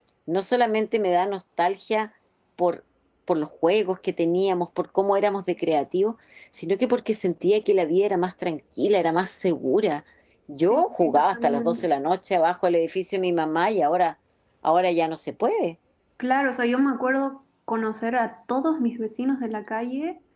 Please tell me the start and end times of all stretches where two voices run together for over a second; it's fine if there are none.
10.6-11.9

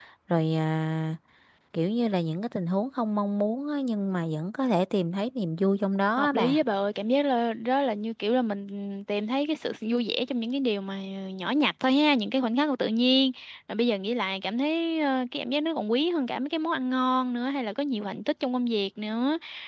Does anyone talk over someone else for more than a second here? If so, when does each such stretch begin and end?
none

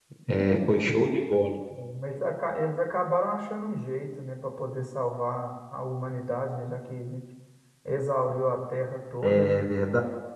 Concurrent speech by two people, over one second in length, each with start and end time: none

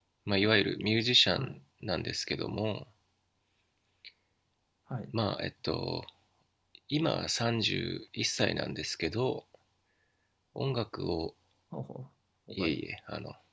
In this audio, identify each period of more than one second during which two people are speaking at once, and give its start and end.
none

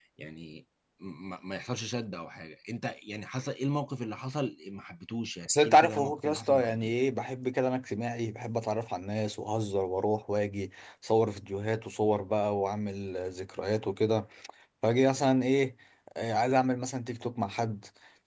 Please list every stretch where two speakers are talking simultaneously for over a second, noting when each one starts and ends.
5.4-7.0

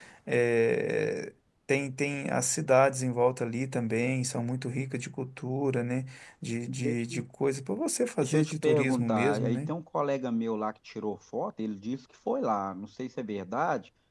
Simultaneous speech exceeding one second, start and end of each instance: 8.2-9.7

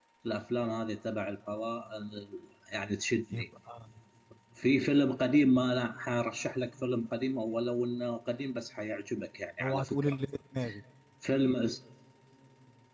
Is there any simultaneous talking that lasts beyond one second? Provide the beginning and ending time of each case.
none

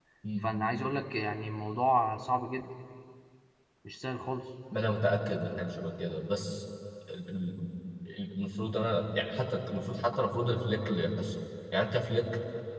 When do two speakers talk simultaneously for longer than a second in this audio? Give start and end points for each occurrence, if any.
none

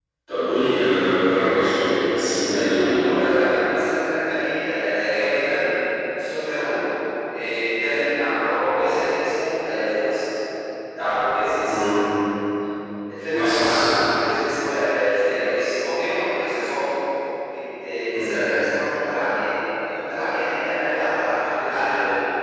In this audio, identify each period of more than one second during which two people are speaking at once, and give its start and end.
none

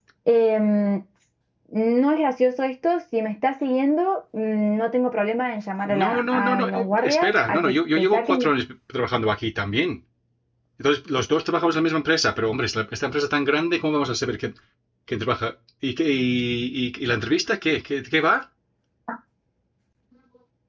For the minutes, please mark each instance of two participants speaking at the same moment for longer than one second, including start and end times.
6.0-8.5

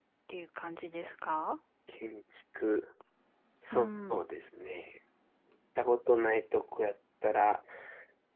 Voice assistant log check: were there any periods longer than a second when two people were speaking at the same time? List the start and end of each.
none

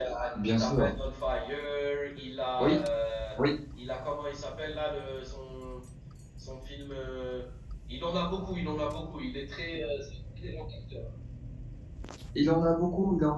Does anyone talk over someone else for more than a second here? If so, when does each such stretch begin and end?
none

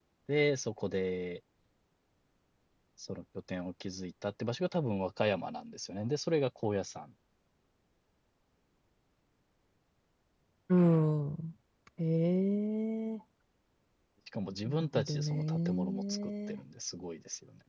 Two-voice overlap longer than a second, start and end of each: 14.6-16.6

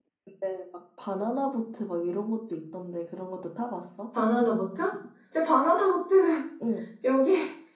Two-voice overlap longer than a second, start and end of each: none

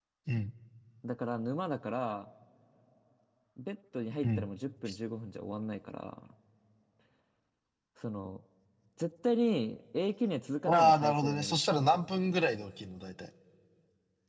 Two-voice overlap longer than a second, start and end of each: 10.7-12.3

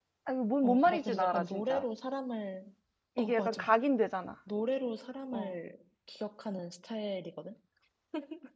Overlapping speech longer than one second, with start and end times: 0.6-1.8

